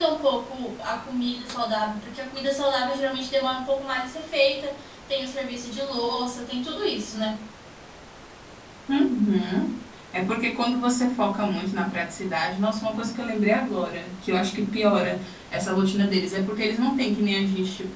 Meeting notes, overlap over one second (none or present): none